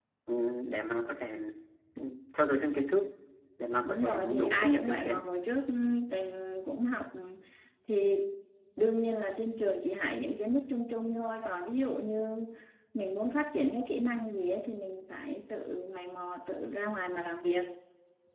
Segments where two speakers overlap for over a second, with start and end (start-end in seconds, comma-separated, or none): 3.9-5.3